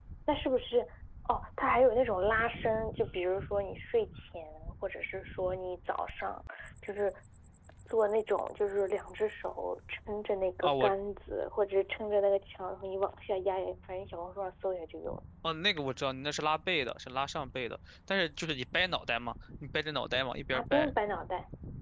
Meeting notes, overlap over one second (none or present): none